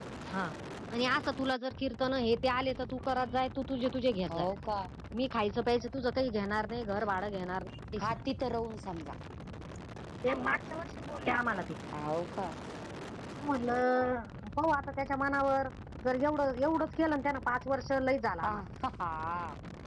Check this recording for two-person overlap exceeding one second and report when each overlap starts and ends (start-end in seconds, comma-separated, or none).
none